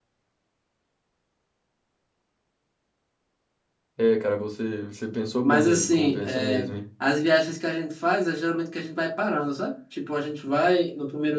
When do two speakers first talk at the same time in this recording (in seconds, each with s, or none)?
5.4 s